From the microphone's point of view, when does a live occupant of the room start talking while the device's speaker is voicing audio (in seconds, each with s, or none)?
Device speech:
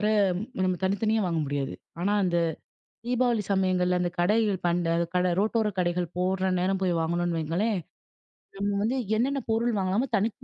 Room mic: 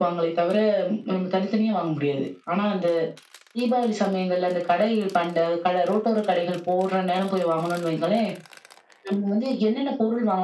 none